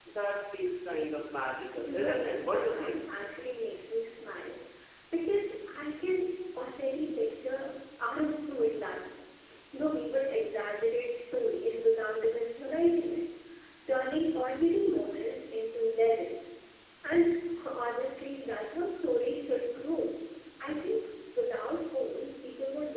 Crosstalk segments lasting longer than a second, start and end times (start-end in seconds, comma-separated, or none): 1.8-3.0